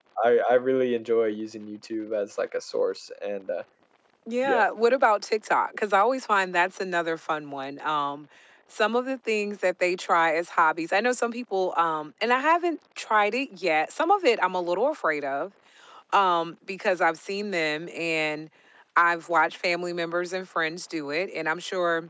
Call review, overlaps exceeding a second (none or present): none